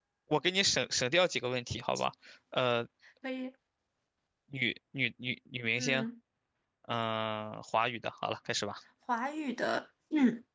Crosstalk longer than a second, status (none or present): none